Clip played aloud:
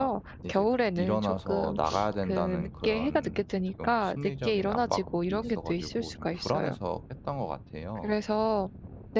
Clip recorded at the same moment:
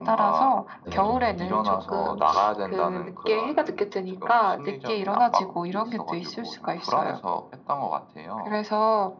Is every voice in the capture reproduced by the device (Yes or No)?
No